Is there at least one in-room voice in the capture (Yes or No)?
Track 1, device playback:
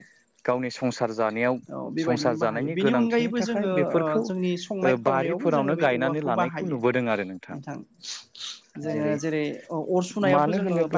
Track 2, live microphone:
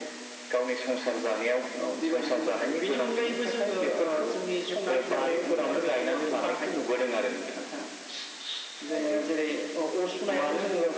Yes